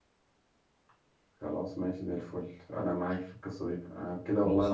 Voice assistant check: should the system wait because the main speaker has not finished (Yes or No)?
Yes